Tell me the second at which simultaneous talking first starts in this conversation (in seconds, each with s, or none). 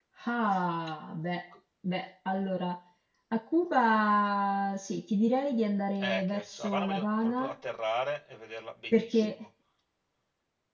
6.0 s